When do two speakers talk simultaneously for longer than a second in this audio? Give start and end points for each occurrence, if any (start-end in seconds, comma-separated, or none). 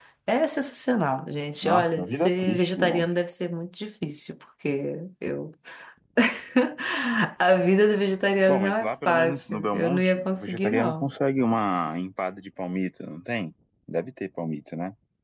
1.6-3.0, 8.5-11.1